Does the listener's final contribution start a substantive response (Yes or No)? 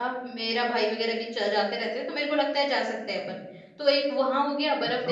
Yes